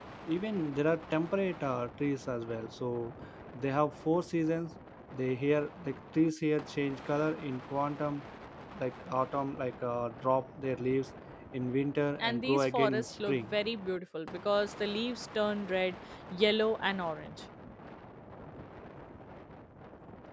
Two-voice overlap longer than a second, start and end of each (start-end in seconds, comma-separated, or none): 12.2-13.5